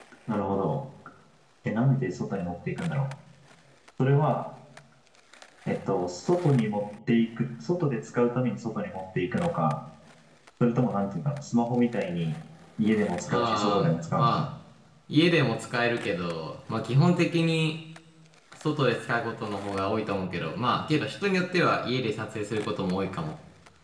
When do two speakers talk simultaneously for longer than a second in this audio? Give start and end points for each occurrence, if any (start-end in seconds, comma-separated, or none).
13.2-14.5